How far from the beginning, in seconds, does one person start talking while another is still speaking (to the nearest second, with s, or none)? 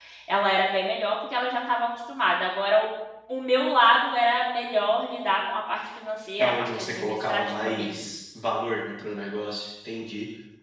6 s